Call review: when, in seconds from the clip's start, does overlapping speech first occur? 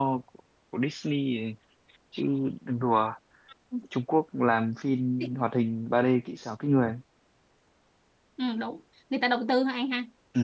none

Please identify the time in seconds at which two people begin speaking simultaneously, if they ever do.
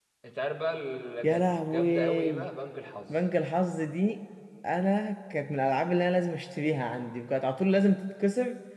1.2 s

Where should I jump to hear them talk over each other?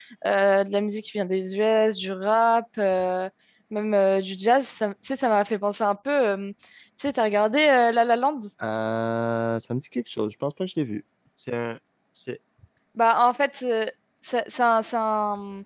none

